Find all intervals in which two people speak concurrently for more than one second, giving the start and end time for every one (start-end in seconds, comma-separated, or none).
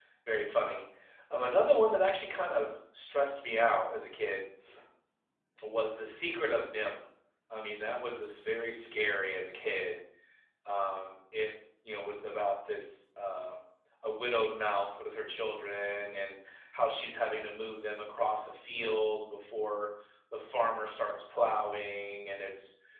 none